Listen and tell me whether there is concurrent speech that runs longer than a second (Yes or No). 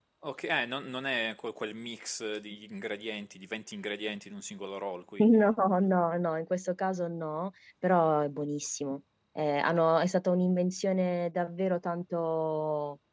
No